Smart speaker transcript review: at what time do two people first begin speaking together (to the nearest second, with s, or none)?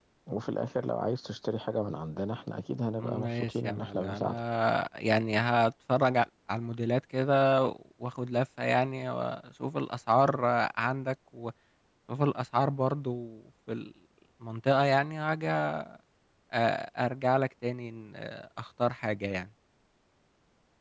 3 s